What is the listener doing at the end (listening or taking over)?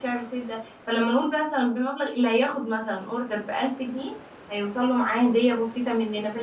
listening